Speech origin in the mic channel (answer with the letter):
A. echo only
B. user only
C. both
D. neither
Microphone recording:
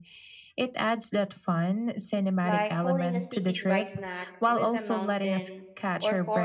C